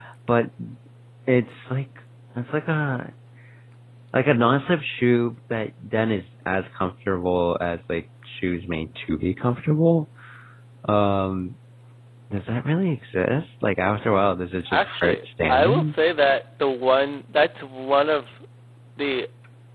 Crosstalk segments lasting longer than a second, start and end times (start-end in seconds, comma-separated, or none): 14.7-15.9